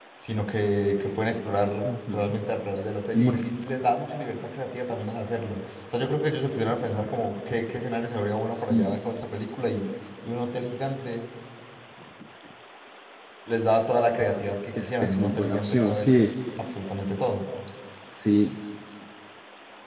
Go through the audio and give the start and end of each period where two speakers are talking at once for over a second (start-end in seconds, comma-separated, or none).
14.8-16.2